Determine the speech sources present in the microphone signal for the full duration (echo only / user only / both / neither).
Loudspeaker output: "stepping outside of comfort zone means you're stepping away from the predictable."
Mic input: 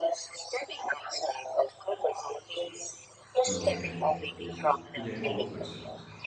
both